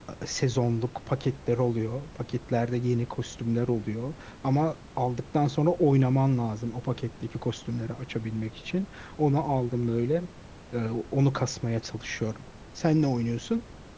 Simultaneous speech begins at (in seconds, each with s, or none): none